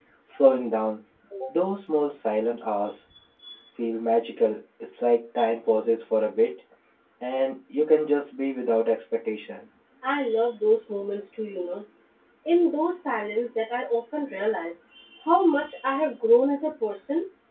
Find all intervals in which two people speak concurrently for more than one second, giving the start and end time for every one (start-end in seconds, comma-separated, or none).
none